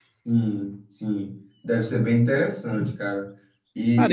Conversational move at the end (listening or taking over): listening